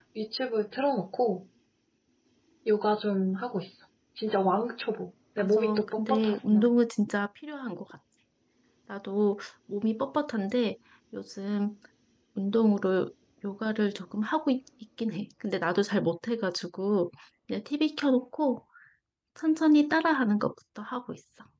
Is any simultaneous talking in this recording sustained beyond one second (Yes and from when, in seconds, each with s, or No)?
Yes, from 5.4 s